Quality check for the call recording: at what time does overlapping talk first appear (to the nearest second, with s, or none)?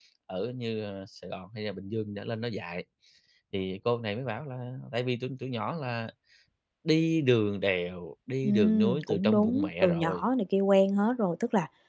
8 s